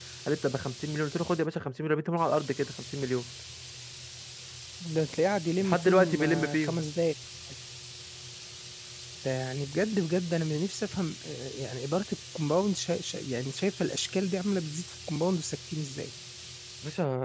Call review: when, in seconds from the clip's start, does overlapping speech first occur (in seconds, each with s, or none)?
5.6 s